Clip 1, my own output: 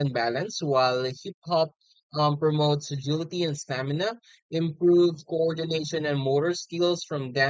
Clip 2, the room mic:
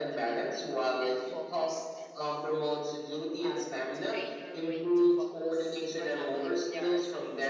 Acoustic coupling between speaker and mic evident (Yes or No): Yes